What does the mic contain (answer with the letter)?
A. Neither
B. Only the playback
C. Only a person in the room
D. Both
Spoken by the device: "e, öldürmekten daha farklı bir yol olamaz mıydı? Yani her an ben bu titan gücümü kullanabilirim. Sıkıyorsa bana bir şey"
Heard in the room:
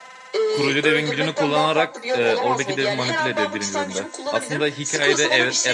D